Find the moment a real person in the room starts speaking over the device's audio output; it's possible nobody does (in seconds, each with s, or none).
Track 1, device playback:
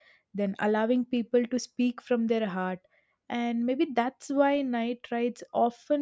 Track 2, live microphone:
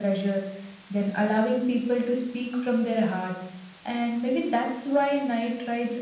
none